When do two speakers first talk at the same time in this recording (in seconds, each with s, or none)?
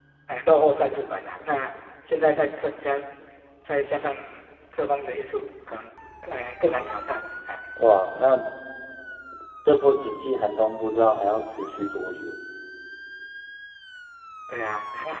none